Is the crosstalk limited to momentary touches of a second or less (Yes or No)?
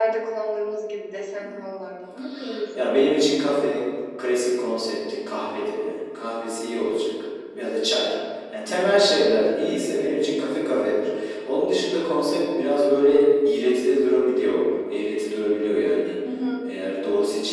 Yes